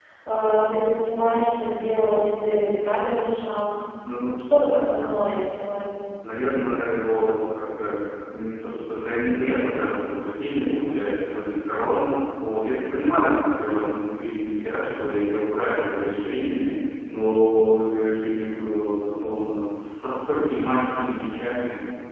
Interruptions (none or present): none